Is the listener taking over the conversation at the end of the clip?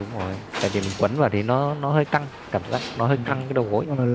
Yes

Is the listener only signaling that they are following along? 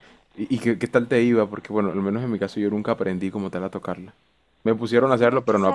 No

